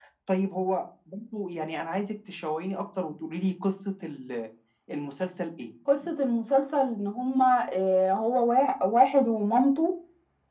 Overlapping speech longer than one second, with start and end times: none

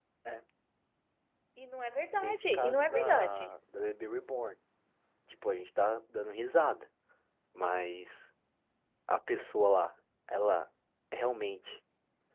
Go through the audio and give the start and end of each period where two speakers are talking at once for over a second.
2.2-3.5

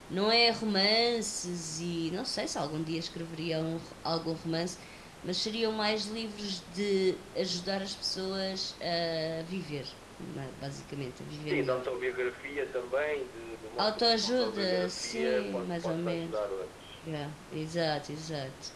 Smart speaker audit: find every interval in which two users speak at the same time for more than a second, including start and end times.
13.8-16.4

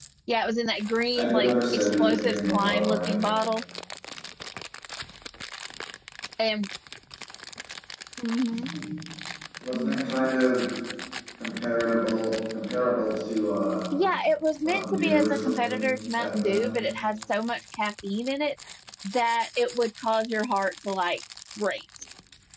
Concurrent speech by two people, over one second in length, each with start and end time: 1.1-3.1, 14.6-16.7

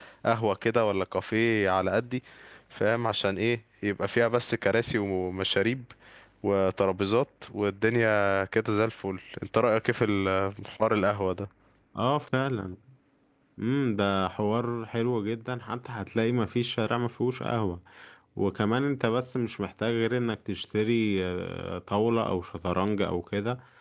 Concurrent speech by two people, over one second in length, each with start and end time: none

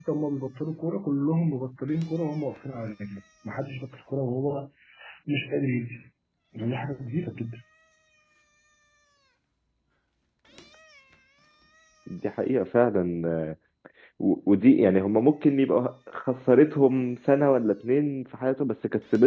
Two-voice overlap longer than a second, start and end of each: none

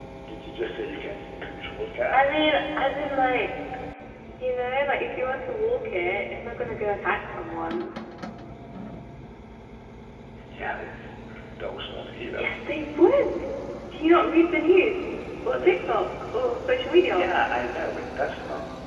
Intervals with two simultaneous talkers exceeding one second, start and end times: none

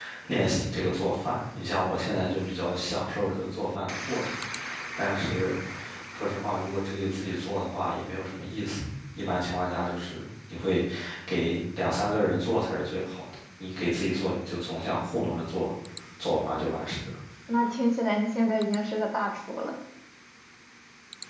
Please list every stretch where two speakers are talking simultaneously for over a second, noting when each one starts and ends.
none

